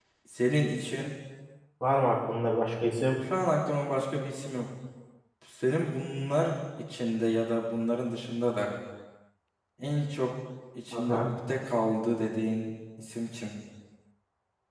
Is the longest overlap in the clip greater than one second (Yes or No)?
No